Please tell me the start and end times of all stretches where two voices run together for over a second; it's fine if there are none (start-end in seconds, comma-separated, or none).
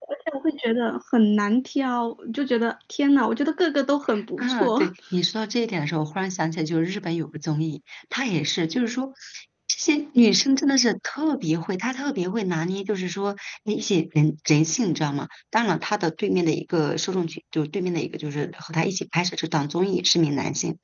none